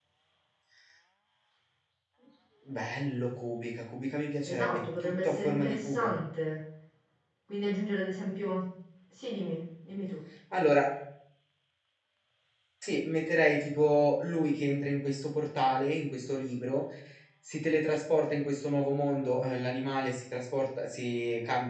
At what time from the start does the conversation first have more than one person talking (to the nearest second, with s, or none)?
4 s